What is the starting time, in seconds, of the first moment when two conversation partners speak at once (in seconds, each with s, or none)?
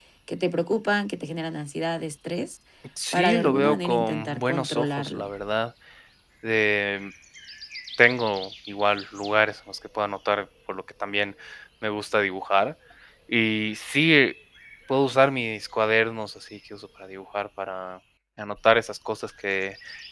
3.1 s